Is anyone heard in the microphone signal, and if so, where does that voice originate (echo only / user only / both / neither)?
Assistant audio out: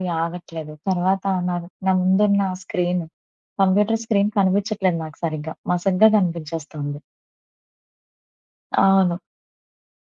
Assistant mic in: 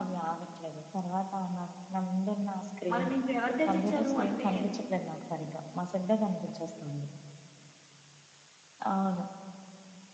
both